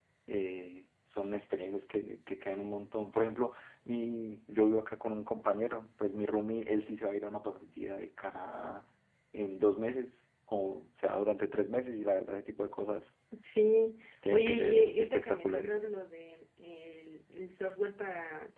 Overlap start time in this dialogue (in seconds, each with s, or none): 14.3 s